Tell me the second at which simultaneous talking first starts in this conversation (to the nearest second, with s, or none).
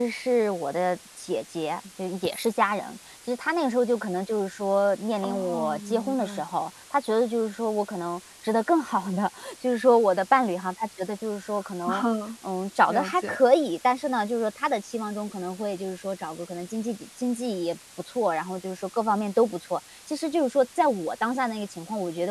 5 s